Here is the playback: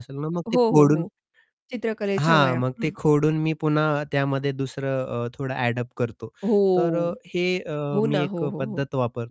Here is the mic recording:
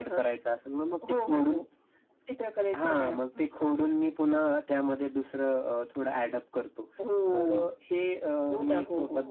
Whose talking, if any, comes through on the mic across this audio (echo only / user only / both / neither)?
echo only